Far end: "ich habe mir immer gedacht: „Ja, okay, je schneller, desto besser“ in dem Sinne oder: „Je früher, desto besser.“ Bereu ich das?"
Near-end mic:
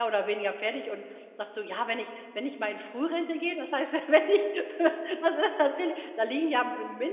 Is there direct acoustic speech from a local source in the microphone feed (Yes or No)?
Yes